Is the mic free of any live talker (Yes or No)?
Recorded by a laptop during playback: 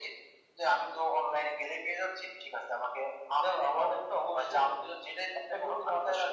Yes